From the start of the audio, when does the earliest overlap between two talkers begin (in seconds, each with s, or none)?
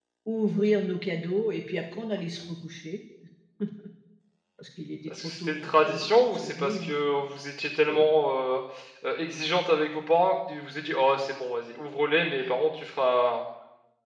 5.1 s